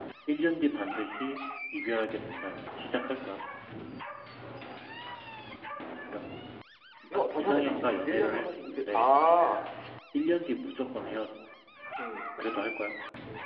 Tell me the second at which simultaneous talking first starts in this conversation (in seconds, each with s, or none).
7.2 s